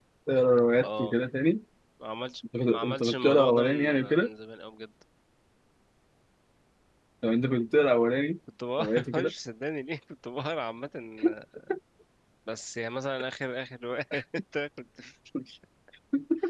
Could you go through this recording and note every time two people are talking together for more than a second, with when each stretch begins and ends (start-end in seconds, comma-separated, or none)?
2.7-4.3